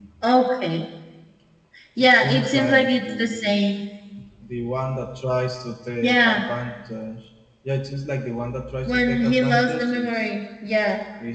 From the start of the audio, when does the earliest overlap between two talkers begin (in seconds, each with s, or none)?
2.0 s